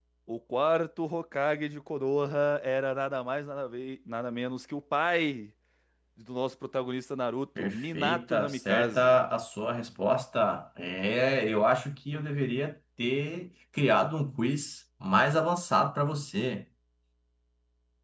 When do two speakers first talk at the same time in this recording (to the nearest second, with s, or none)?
8 s